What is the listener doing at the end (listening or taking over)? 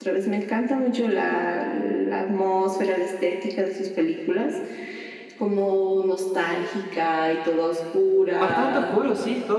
taking over